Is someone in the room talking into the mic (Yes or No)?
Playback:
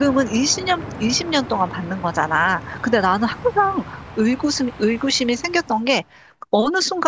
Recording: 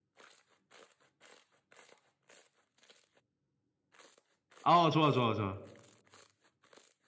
Yes